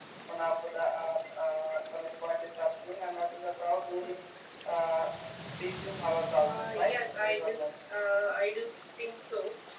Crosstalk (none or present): present